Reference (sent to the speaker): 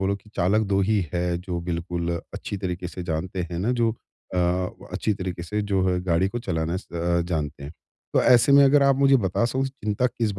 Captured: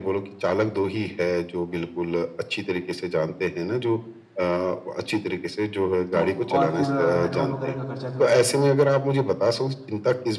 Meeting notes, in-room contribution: present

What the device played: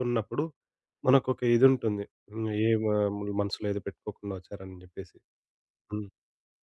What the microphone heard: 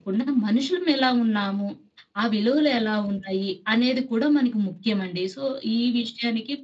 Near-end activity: present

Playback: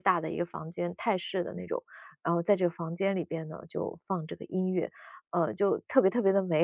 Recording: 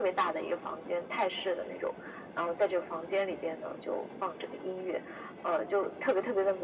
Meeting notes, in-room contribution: none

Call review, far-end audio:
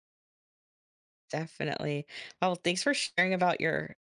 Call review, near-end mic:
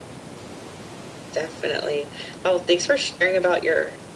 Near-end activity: none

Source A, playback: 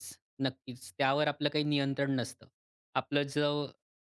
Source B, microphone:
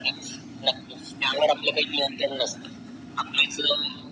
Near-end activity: none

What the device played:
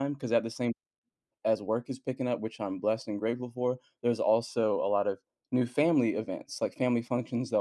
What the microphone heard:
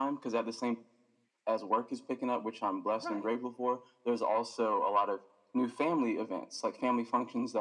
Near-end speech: present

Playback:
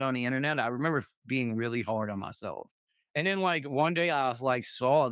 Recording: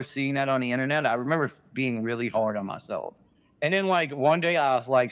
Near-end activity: none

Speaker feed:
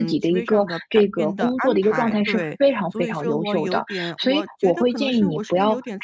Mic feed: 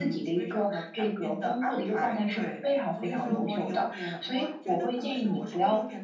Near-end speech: present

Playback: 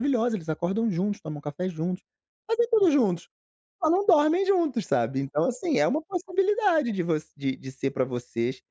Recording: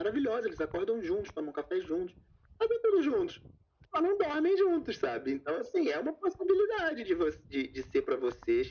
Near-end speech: none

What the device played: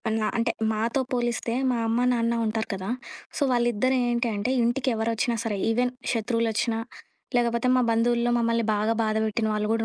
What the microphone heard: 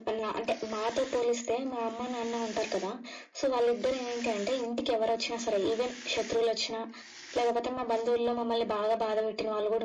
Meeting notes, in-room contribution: none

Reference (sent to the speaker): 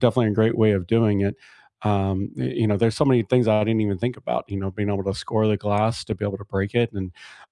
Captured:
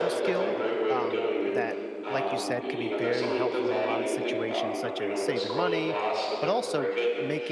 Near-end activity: present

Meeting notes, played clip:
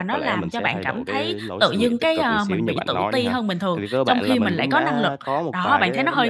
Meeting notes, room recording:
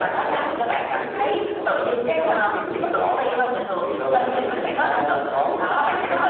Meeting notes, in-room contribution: none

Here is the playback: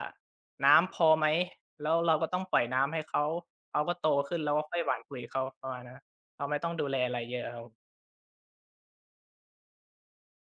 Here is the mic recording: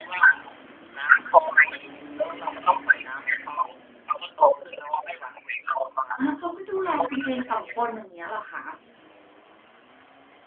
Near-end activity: present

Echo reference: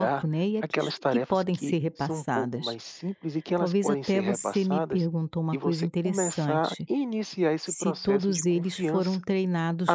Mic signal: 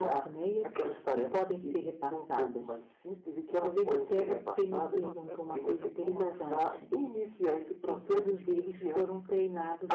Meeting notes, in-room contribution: present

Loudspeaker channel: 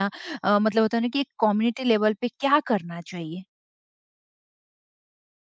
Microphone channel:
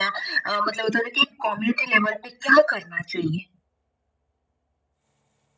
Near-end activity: none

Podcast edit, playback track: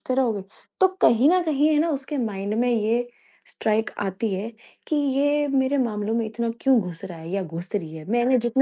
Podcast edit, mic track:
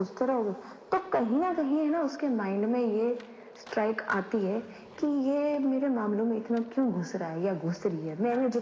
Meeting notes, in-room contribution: none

